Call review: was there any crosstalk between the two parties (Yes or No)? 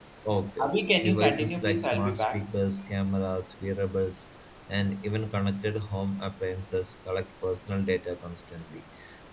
Yes